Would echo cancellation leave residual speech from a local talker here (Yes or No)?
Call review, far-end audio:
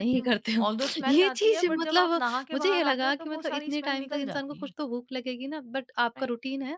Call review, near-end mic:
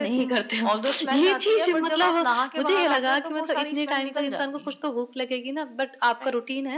No